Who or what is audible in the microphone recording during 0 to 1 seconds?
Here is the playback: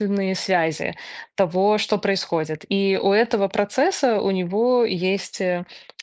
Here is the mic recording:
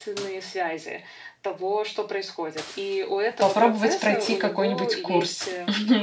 echo only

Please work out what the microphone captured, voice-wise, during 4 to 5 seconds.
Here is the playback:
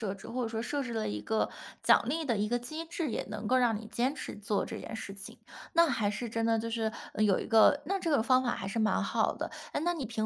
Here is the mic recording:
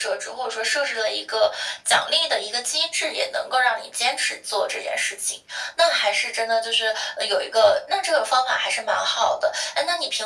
echo only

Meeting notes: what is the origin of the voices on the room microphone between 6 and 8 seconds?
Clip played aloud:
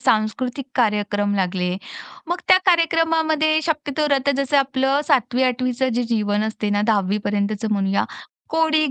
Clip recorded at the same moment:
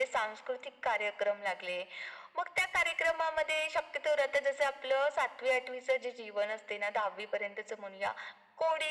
echo only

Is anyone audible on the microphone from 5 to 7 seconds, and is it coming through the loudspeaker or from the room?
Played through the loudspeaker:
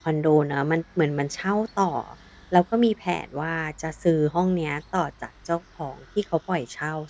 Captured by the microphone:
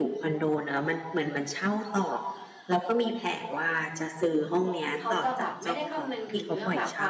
both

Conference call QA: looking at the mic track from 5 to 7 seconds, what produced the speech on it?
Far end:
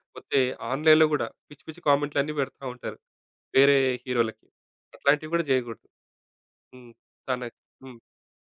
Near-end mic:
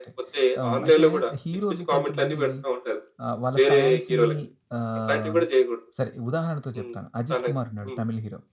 both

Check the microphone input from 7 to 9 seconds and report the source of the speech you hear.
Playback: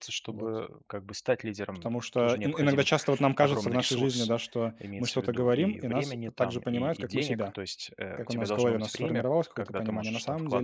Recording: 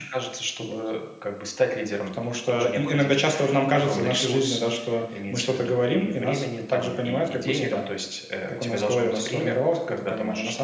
echo only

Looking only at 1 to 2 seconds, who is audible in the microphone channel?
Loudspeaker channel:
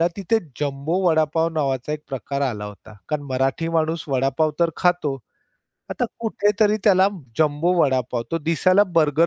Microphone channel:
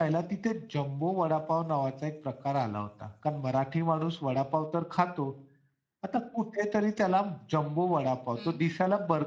echo only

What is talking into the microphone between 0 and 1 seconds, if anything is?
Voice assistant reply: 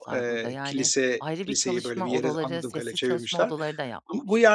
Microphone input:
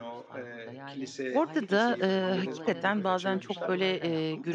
echo only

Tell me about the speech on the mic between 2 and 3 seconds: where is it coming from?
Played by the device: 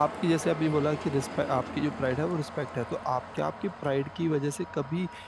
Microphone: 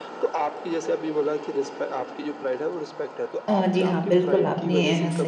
echo only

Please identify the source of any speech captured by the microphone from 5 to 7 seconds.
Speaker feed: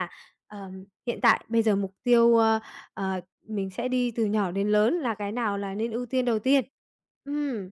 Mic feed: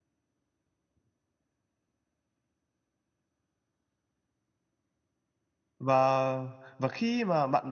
user only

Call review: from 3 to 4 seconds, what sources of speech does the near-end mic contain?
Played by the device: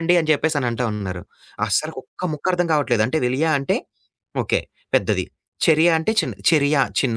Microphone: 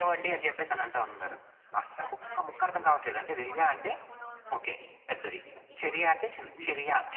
both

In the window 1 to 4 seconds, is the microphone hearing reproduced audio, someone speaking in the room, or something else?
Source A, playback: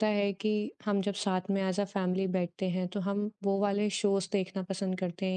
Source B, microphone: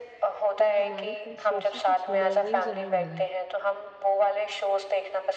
both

